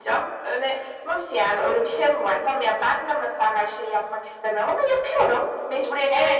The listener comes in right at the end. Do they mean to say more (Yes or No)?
Yes